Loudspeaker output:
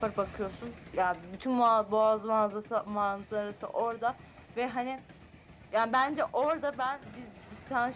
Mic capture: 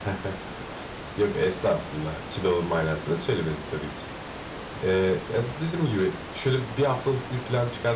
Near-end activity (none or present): present